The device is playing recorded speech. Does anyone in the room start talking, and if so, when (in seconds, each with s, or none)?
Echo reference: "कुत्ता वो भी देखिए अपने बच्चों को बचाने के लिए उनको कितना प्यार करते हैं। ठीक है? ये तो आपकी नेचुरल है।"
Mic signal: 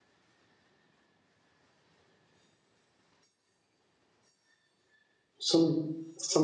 5.5 s